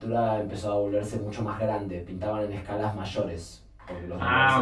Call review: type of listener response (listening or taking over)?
taking over